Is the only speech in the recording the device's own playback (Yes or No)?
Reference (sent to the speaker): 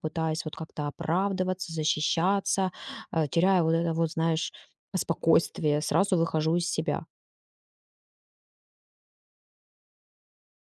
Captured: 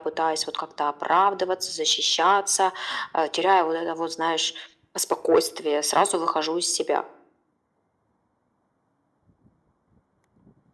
Yes